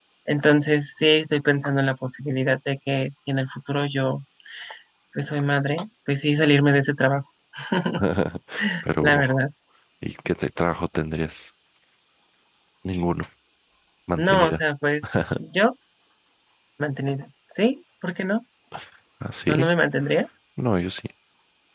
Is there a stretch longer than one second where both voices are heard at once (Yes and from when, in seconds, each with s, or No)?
No